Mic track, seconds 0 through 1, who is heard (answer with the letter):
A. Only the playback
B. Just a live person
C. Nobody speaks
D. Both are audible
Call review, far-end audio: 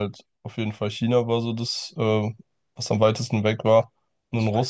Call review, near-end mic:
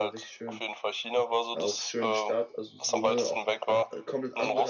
D